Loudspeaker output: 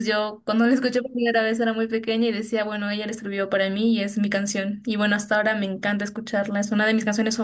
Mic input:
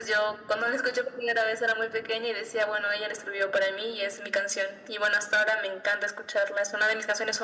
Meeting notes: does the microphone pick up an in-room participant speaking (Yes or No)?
No